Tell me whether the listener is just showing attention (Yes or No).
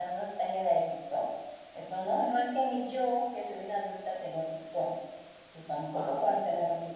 Yes